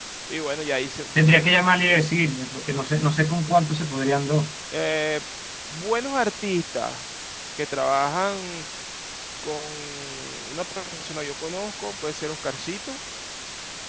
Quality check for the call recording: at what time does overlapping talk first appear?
none

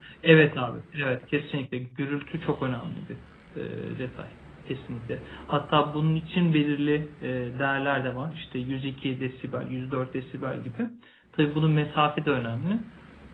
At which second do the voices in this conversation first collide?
none

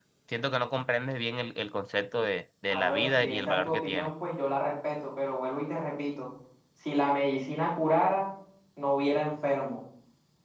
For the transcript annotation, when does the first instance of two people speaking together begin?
2.7 s

